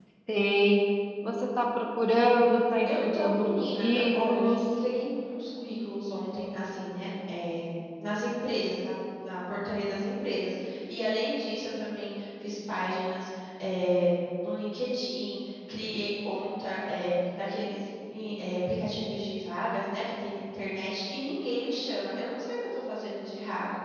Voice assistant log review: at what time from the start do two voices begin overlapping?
2.9 s

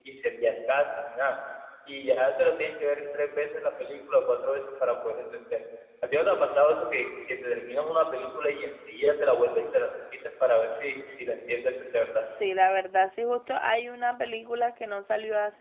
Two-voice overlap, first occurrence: none

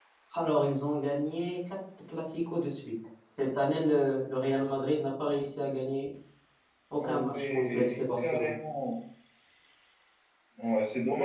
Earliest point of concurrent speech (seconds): 7.0 s

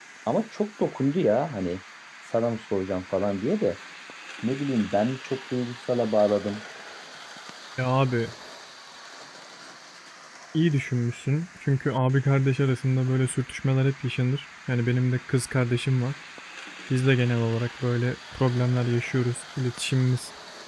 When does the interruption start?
none

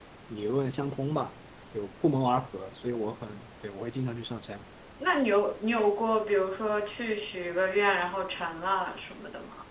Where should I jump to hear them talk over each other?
none

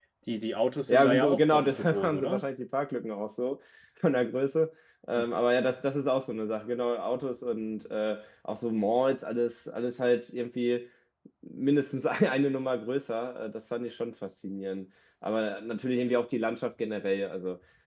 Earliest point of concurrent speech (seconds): 0.9 s

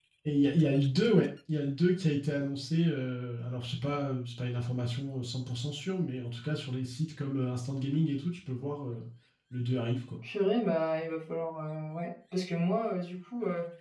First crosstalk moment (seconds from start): none

